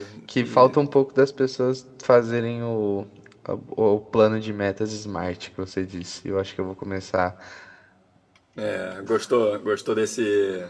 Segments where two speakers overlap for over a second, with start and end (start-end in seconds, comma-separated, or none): none